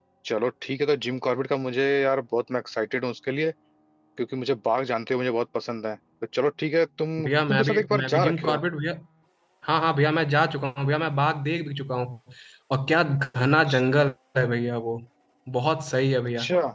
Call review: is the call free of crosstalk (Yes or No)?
No